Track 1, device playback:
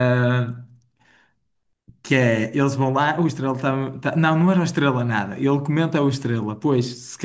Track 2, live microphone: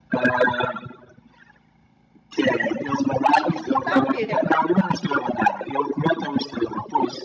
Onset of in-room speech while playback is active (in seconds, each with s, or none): 3.3 s